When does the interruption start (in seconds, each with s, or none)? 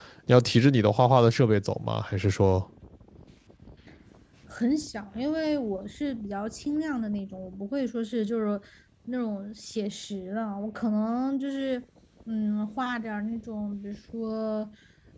none